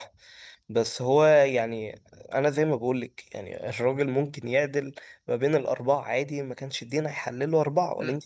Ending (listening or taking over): taking over